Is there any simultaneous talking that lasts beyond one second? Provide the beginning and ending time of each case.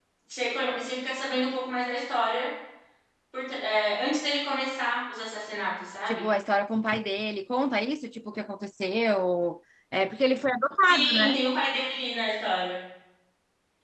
none

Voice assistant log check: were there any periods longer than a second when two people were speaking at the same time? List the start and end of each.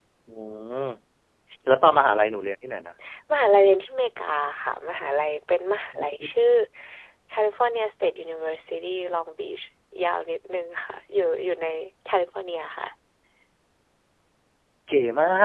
none

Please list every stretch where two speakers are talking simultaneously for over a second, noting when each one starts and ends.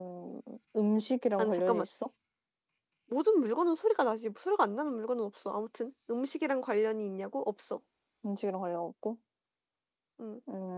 none

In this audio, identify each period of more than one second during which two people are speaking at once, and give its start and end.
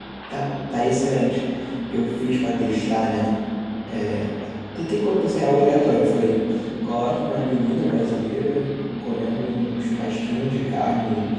none

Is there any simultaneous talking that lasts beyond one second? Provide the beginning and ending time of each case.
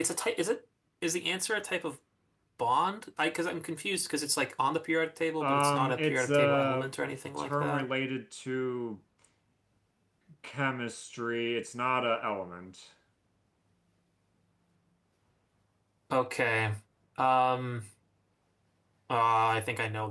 5.4-6.9

